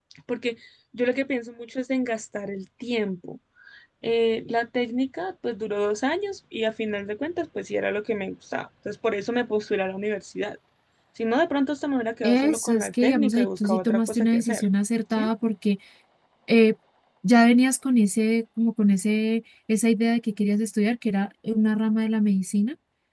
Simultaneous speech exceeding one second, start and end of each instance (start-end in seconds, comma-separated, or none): 12.2-14.7